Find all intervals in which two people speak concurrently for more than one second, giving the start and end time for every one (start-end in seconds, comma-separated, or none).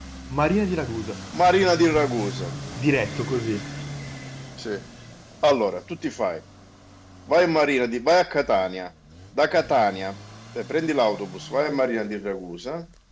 none